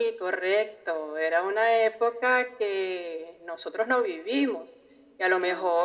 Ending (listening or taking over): listening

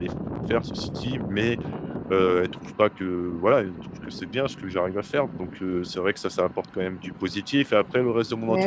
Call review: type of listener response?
listening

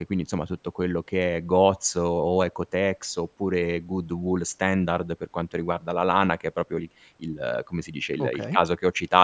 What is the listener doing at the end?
listening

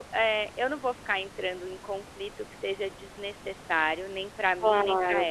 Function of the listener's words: taking over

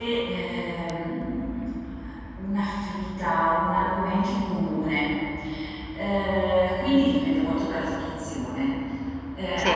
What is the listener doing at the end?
listening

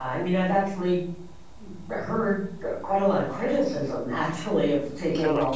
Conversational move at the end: listening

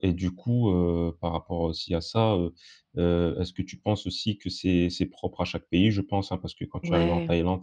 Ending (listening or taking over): listening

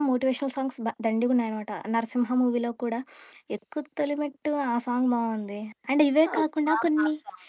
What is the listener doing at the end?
taking over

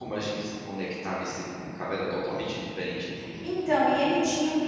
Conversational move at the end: taking over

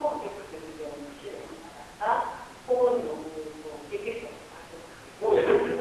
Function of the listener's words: taking over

